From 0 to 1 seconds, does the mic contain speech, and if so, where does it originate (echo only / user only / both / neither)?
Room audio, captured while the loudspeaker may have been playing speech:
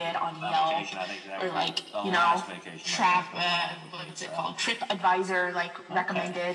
echo only